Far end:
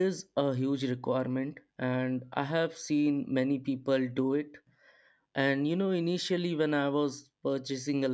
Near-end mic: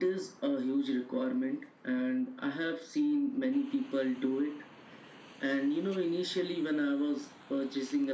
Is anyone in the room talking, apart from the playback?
No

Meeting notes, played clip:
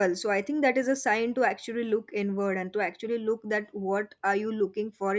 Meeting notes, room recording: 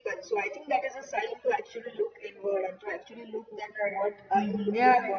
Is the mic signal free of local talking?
No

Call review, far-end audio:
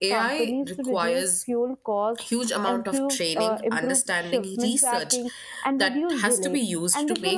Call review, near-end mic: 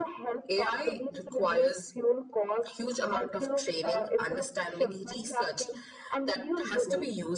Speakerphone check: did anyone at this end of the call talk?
No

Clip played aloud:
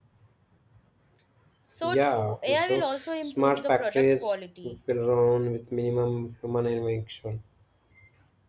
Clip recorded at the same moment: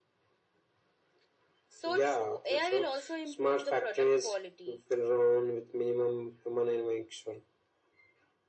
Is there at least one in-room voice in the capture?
No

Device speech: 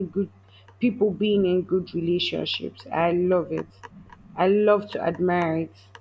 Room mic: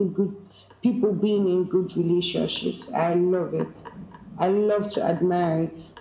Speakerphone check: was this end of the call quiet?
Yes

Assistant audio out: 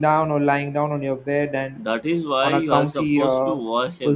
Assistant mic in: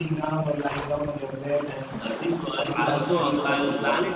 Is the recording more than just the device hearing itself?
Yes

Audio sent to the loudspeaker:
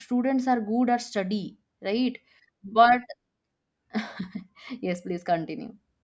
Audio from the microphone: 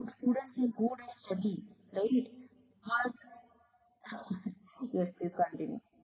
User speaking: No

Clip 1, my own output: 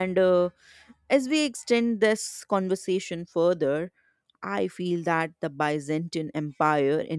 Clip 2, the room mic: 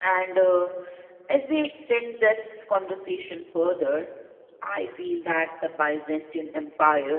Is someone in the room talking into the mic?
No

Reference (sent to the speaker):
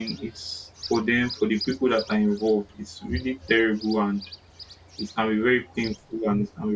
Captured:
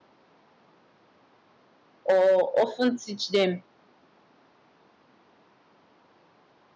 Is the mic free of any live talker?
No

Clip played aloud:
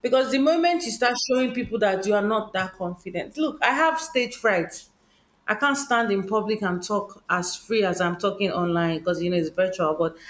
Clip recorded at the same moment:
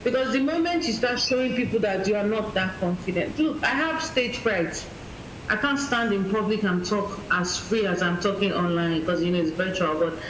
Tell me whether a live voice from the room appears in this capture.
No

